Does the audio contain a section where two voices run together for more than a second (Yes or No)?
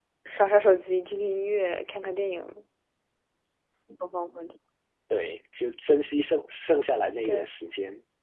No